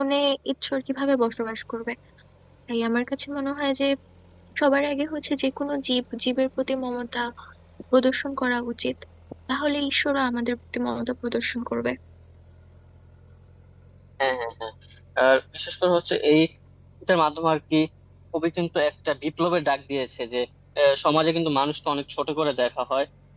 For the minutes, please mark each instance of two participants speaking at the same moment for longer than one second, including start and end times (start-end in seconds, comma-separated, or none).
none